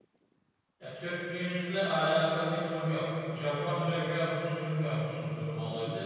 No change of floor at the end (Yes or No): Yes